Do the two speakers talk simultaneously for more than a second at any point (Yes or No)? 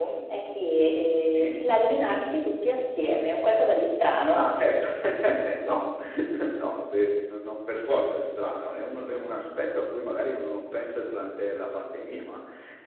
No